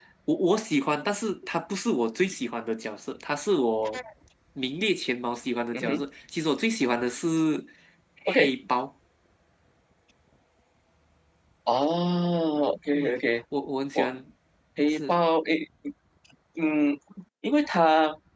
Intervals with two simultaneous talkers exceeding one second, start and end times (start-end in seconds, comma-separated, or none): none